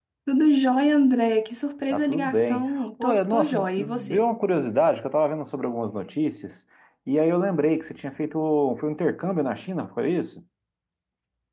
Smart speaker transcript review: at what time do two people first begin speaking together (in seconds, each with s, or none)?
1.9 s